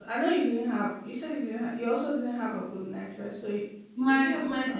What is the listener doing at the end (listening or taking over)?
taking over